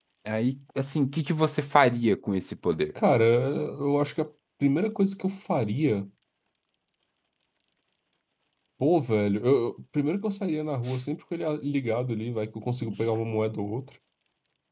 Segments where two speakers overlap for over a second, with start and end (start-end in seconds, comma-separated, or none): none